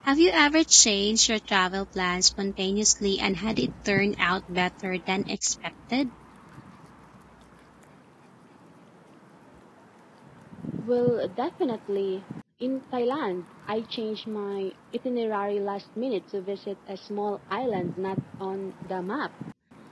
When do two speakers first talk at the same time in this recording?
none

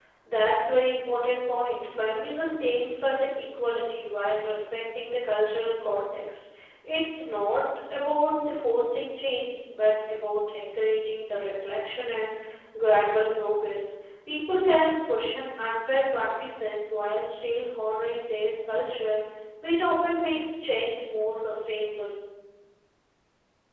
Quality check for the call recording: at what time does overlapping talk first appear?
none

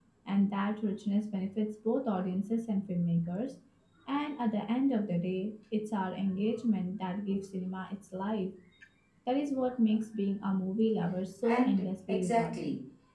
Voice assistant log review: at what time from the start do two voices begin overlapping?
11.4 s

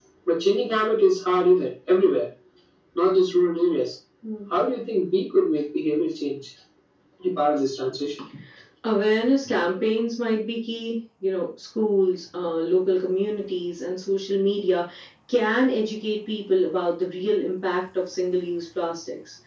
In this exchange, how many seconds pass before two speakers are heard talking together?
none

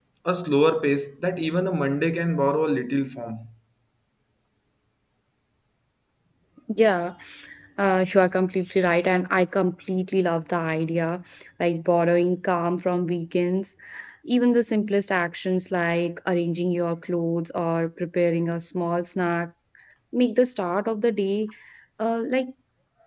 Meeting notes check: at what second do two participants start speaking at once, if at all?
none

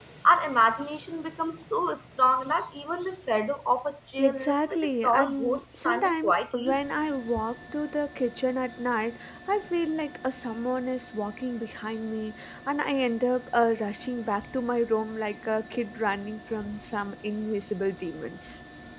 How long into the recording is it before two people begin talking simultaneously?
4.2 s

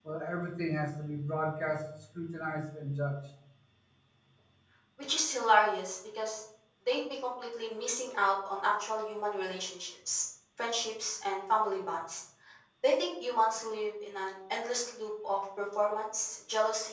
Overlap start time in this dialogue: none

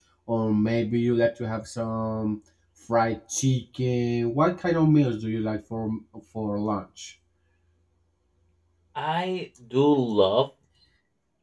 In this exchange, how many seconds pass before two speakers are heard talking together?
none

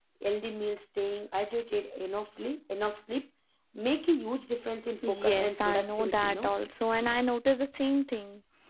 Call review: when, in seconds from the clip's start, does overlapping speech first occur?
5.0 s

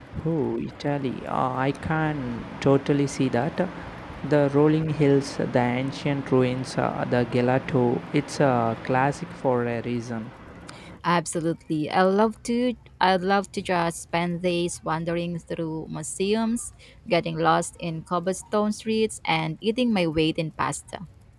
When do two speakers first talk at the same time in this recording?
none

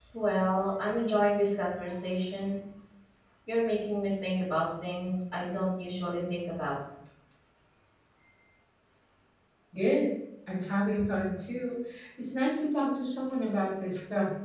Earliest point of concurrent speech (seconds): none

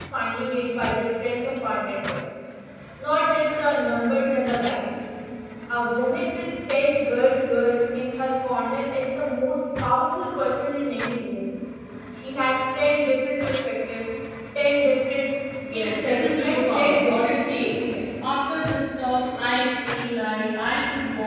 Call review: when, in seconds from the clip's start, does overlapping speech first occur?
15.6 s

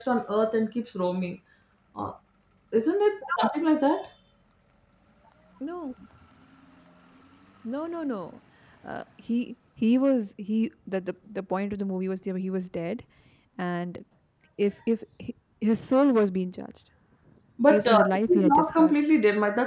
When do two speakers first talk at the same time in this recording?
17.7 s

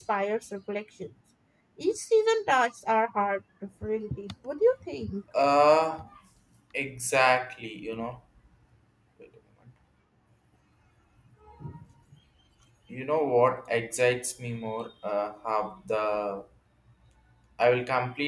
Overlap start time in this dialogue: none

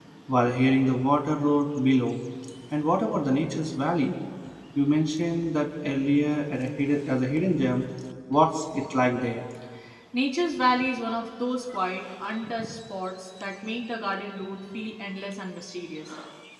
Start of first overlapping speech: none

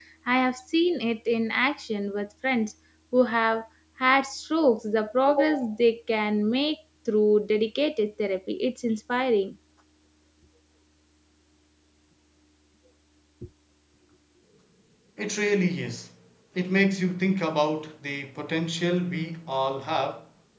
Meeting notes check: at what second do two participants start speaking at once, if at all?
none

